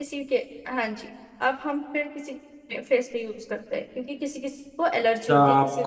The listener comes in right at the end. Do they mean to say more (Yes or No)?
Yes